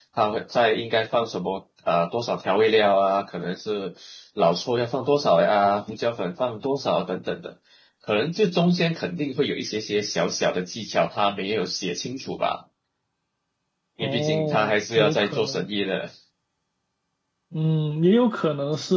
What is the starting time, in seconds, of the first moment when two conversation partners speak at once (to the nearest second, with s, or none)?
14 s